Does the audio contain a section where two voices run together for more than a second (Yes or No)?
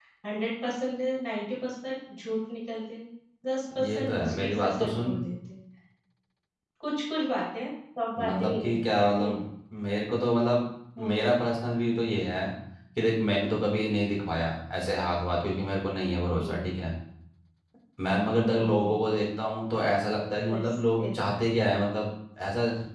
Yes